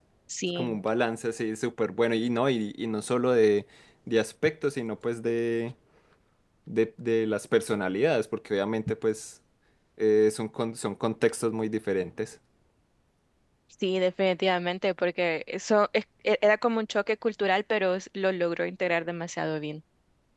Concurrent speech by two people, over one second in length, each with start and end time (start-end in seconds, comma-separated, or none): none